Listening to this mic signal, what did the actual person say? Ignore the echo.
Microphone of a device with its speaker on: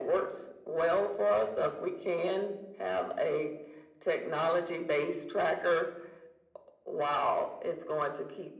none

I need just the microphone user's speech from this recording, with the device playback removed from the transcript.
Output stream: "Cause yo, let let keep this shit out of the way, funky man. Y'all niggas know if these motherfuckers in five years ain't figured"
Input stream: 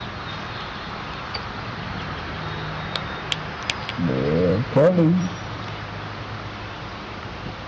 Man, I'm telling you.

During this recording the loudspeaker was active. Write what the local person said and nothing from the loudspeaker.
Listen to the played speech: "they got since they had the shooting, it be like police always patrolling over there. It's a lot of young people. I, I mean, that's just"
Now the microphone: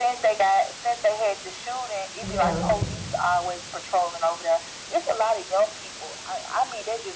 yeah,

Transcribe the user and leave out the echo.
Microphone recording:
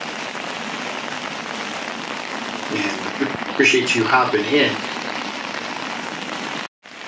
and pre- appreciate you hopping in.

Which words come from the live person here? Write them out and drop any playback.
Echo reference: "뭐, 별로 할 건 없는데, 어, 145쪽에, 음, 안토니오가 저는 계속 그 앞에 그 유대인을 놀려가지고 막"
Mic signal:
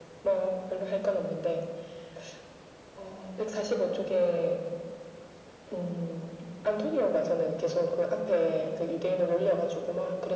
none

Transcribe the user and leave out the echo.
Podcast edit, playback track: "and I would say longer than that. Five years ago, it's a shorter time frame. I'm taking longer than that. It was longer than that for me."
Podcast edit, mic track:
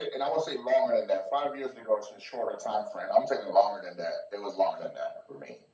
none

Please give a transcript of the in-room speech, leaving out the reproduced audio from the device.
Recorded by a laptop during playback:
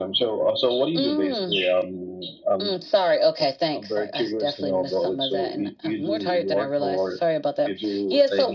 none

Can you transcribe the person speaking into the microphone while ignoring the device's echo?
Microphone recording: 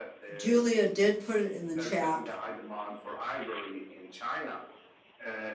Julia did put it in the chat

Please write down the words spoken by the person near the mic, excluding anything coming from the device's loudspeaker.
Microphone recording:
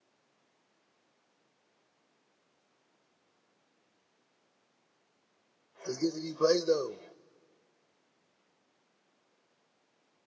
Let's get to these plays, though.

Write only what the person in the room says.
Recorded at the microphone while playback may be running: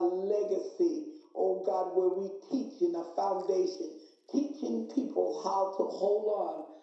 none

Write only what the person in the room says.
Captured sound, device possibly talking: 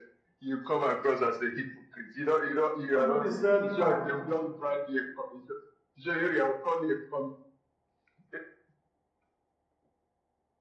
somebody said, ah,

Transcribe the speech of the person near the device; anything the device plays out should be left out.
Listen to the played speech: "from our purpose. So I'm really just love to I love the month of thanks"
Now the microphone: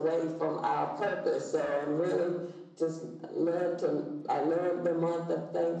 none

